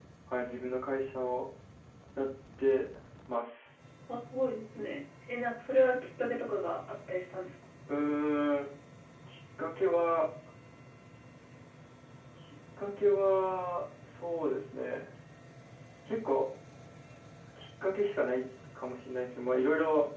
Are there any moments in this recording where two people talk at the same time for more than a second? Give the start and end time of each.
none

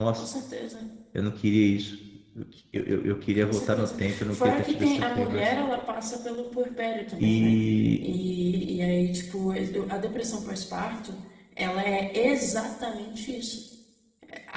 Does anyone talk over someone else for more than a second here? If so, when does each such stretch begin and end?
3.4-5.5

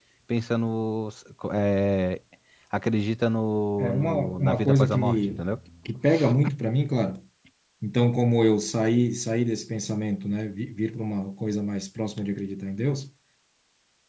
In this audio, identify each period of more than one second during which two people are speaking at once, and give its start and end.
3.8-5.4

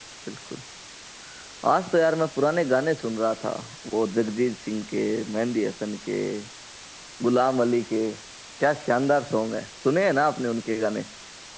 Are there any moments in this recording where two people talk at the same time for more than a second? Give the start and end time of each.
none

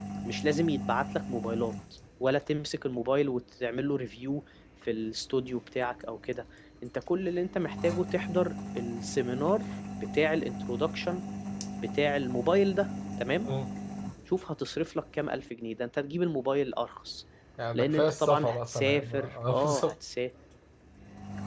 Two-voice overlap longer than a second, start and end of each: 17.7-19.9

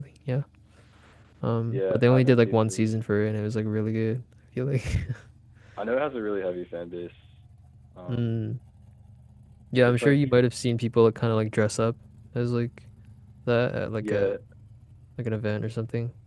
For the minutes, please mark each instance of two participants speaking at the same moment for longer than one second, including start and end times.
1.7-2.9

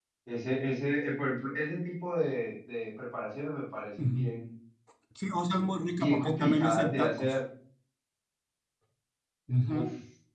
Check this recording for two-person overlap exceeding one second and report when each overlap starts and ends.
5.9-7.3

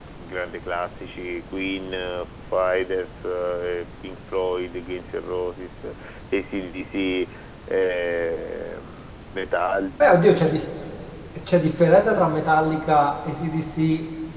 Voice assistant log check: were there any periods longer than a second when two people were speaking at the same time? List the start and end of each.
none

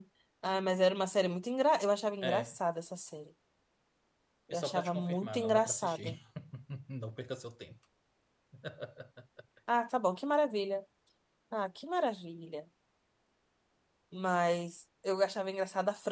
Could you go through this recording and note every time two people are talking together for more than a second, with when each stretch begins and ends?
4.5-6.1

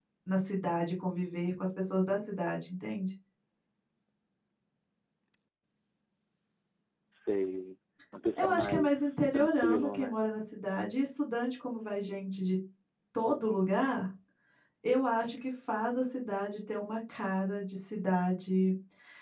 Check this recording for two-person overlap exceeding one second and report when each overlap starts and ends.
8.4-10.2

